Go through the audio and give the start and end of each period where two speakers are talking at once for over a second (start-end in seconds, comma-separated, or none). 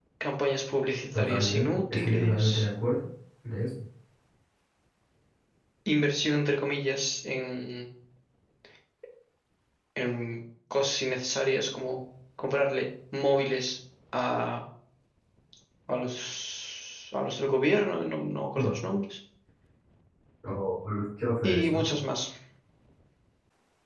1.1-2.4